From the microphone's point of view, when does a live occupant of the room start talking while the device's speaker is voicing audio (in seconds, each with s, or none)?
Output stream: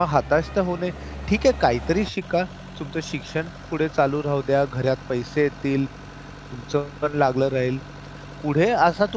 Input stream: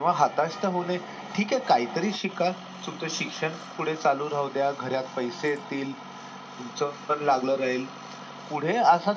none